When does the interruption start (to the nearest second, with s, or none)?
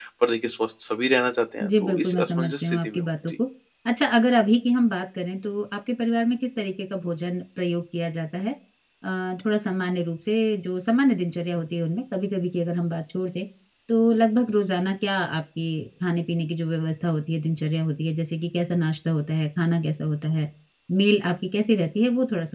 2 s